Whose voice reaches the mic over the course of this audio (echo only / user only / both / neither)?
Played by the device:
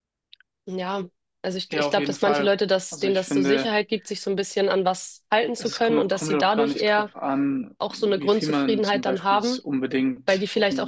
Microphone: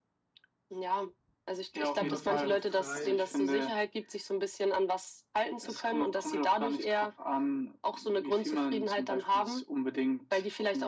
both